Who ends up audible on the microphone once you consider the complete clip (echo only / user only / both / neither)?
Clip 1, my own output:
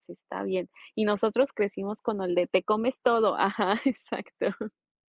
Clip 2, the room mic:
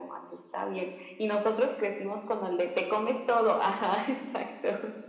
echo only